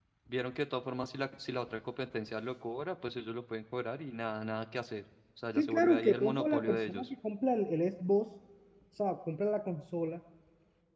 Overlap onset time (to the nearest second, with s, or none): 6 s